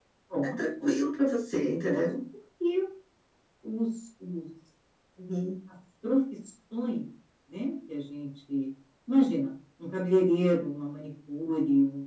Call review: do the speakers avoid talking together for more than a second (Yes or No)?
Yes